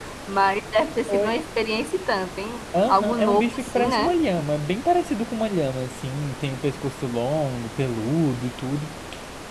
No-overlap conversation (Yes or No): No